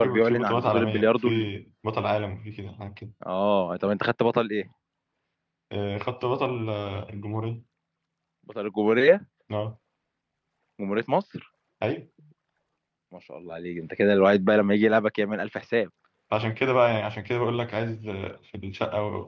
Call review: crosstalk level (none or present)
present